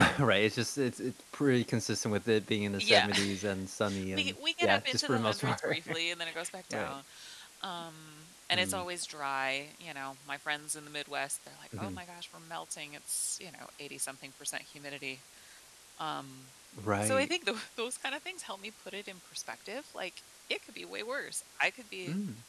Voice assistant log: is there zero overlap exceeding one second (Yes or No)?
No